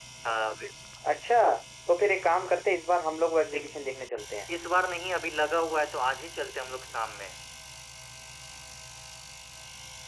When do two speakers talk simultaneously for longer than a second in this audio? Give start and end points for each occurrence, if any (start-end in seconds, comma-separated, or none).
none